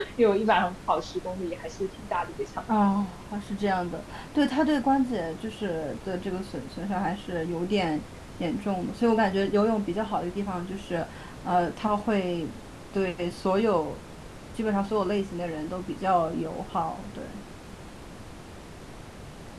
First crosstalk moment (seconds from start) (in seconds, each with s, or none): none